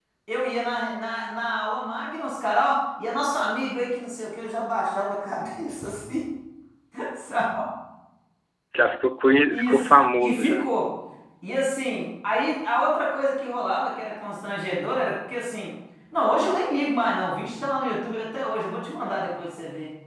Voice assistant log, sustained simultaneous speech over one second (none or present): present